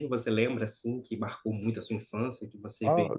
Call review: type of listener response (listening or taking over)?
taking over